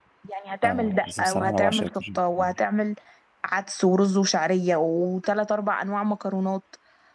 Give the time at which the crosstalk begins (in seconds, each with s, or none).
0.6 s